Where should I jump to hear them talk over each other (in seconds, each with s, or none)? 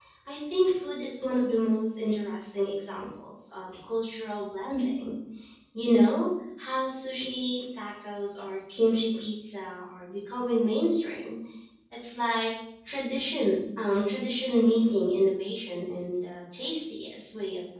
none